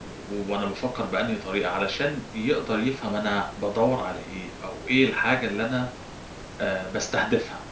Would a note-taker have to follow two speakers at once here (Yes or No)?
No